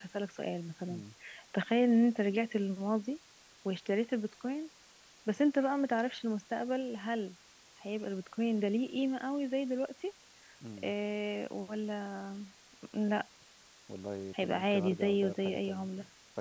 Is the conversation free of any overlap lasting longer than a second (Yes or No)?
No